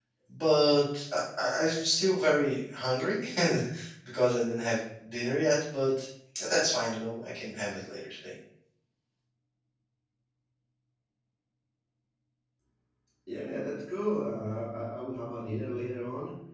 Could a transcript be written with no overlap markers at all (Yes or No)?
Yes